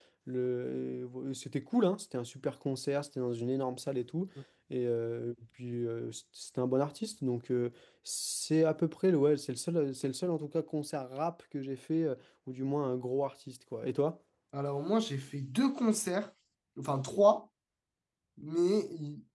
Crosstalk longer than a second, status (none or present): none